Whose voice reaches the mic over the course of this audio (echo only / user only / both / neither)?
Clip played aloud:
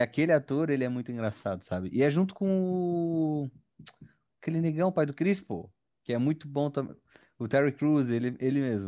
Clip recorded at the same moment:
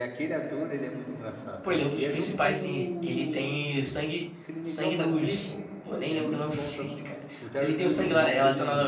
both